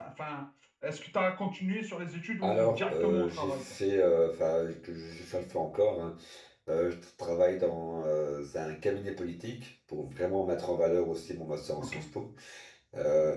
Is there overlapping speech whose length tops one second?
Yes, from 2.4 s

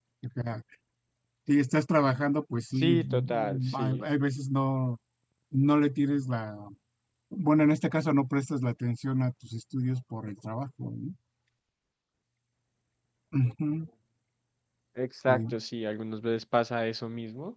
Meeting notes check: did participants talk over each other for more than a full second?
Yes, from 2.8 s

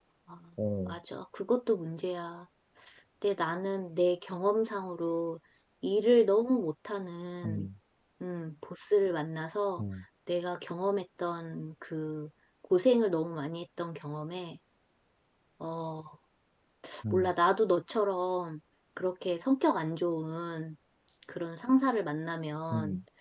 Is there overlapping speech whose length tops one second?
No

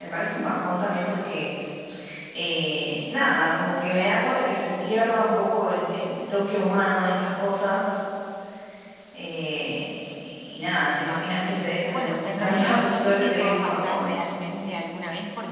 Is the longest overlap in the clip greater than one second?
Yes, from 11.9 s

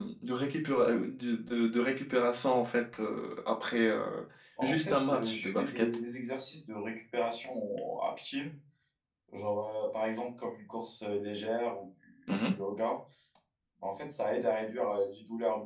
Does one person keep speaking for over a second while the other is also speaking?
Yes, from 4.6 s

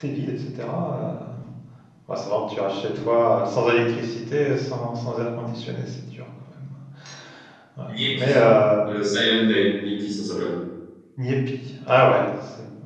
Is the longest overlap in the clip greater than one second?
No

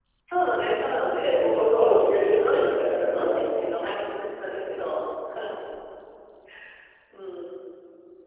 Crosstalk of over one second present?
Yes, from 1.2 s

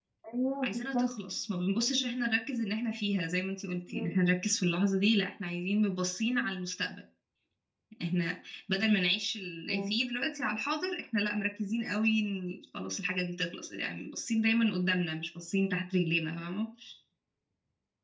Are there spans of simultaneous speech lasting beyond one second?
No

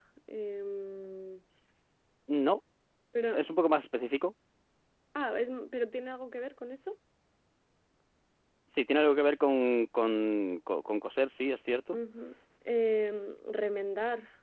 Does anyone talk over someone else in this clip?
No

